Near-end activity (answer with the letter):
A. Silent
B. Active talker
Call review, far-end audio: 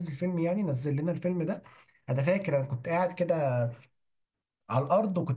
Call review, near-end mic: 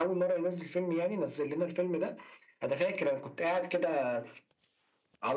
A